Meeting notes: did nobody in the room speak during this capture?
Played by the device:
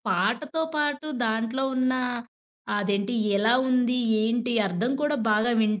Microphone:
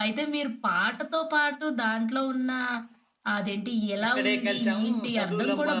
No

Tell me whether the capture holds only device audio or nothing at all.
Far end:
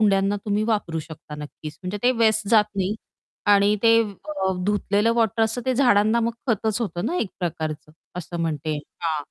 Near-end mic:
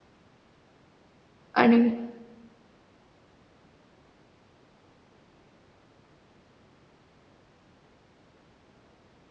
No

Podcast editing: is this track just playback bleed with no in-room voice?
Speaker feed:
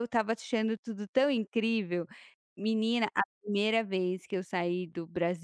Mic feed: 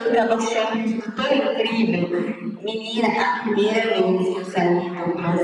Yes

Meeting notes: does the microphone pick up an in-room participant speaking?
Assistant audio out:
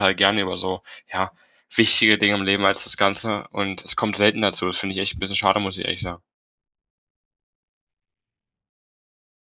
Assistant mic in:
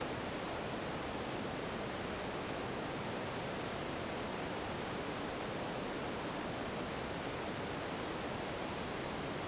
No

